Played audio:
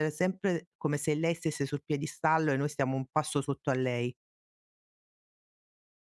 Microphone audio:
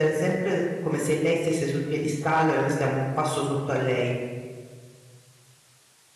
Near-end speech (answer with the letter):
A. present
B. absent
B